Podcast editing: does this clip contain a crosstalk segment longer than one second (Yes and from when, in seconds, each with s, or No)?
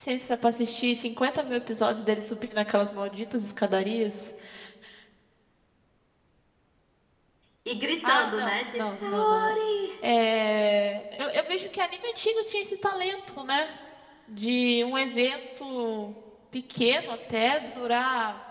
Yes, from 8.0 s